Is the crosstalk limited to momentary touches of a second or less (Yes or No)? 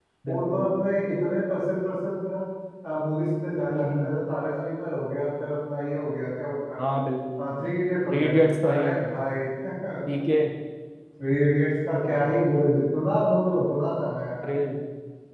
Yes